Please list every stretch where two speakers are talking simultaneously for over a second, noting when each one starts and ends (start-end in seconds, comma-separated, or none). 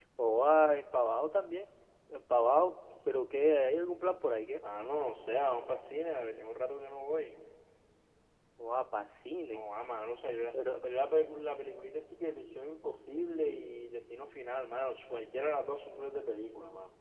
none